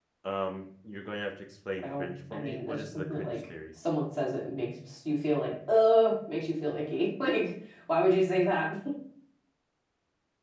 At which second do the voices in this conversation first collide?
2 s

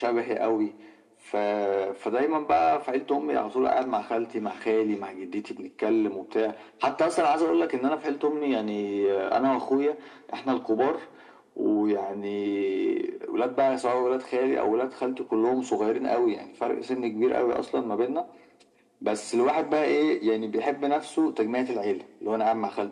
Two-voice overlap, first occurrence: none

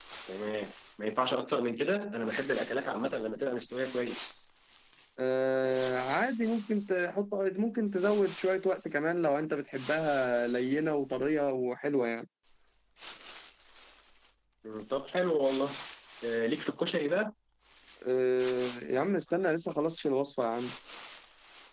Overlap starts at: none

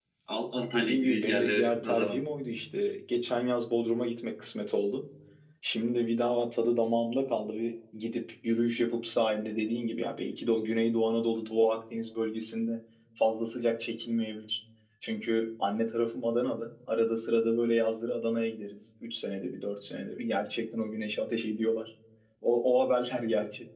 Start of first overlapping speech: 1 s

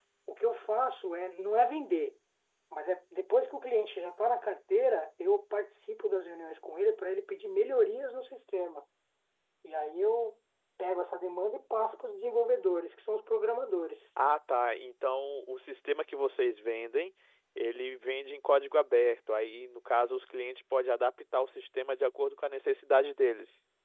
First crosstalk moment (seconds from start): none

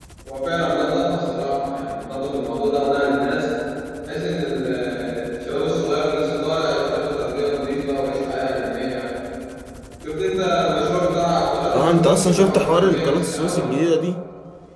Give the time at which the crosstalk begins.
12 s

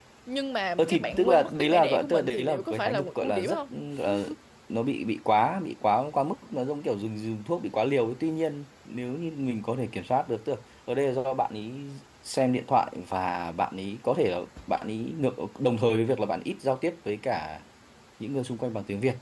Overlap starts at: 1 s

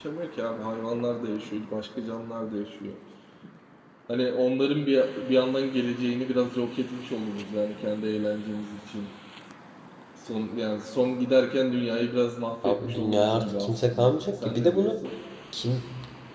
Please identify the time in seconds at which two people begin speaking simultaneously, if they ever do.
13 s

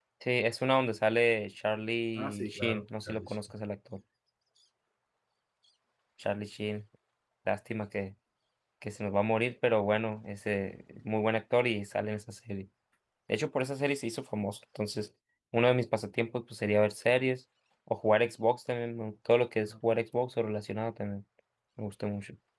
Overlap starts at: 2 s

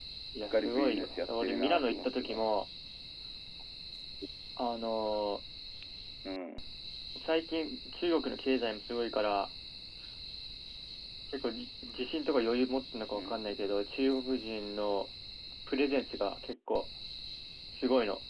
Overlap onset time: 1 s

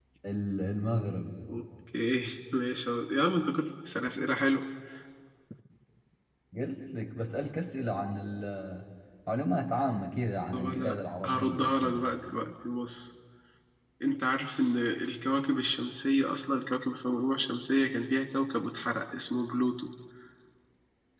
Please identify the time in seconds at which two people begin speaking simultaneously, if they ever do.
11 s

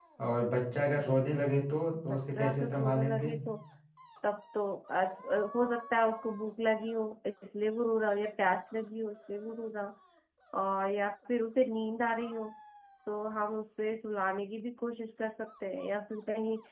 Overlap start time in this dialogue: 2 s

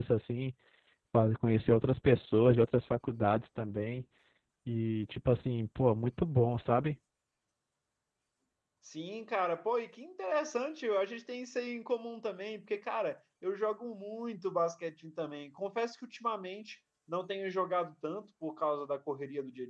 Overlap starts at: none

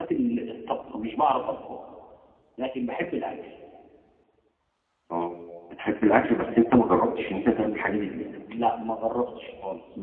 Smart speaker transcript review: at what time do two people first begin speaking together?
none

